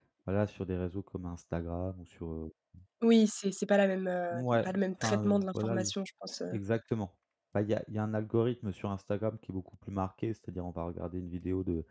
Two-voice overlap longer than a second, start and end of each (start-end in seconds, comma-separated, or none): 4.3-5.9